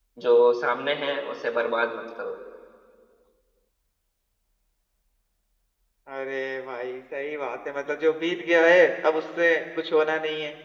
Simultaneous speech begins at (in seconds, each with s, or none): none